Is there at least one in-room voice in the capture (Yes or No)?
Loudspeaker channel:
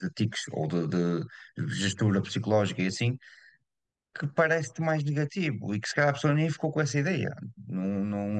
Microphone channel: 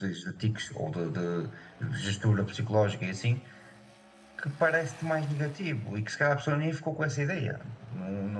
No